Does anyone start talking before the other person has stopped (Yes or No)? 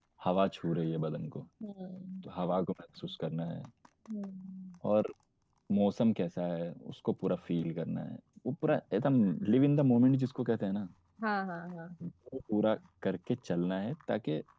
No